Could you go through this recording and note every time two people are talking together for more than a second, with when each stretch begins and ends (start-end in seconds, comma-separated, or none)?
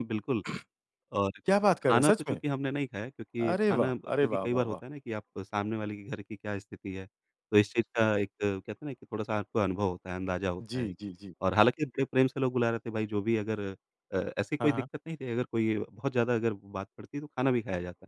3.5-4.8